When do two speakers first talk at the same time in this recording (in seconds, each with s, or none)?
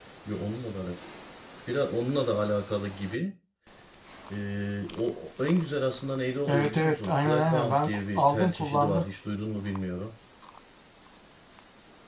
6.5 s